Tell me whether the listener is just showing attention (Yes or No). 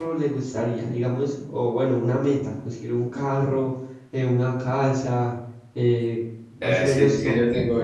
No